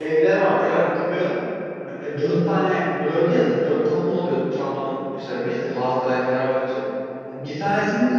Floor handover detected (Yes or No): No